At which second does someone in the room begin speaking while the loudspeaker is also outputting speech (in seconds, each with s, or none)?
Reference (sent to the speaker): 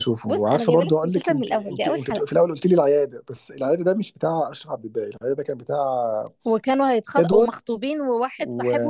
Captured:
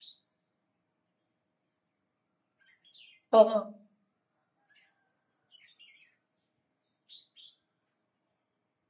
3.3 s